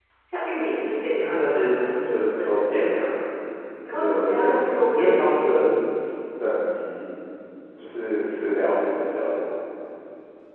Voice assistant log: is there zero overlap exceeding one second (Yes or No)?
No